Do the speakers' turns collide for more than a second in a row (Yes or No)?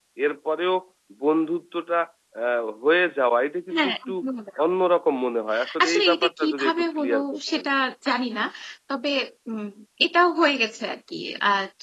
Yes